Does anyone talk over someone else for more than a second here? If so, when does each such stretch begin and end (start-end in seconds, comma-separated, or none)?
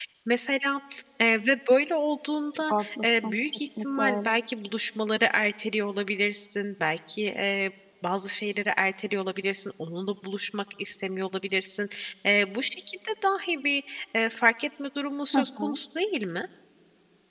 2.7-4.3